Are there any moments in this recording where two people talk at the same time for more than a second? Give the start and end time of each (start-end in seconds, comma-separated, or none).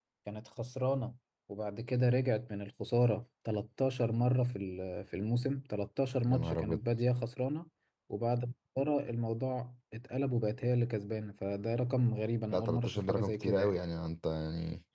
12.5-13.8